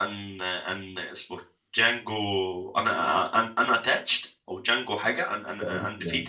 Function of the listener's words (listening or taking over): taking over